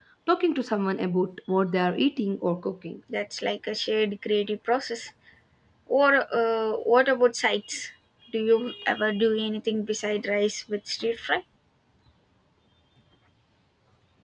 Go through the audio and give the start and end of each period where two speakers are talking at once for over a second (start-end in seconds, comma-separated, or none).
none